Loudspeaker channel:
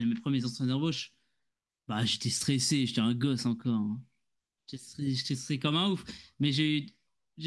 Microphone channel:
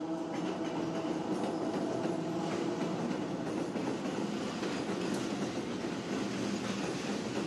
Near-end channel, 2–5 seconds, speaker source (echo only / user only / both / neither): neither